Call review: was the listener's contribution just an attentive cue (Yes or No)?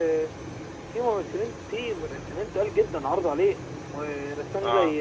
Yes